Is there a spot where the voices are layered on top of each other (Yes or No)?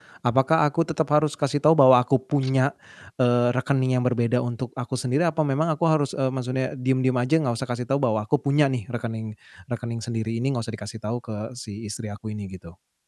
No